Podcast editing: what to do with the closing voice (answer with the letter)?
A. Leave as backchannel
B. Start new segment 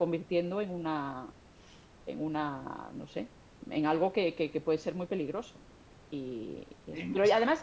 A